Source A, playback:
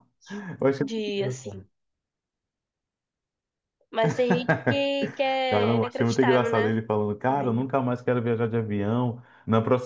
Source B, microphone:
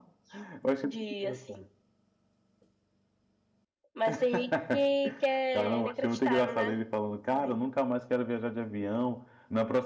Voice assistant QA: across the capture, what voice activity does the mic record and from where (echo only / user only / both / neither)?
echo only